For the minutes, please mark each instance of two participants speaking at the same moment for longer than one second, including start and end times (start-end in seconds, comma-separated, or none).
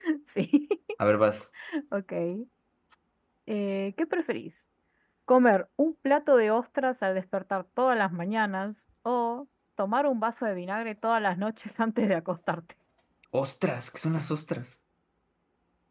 none